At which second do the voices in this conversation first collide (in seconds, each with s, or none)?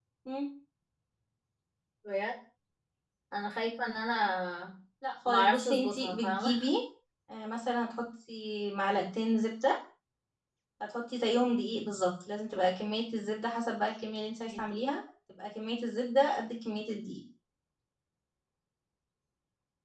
5.2 s